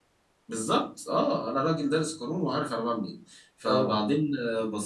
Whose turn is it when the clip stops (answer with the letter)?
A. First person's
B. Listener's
A